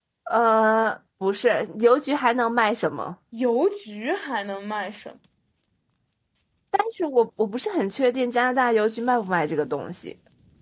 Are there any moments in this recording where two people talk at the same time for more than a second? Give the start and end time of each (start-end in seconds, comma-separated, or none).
none